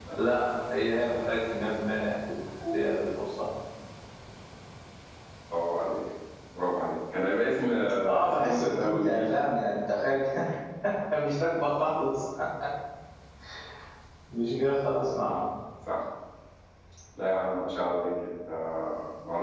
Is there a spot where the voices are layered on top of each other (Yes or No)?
Yes